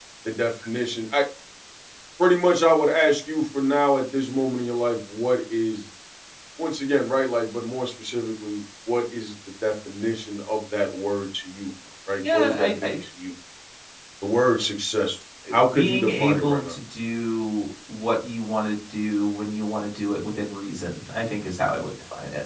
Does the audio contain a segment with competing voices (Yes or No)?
Yes